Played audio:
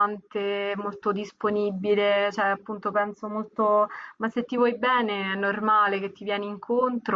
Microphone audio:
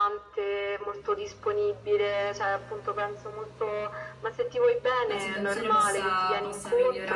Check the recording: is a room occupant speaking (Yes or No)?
Yes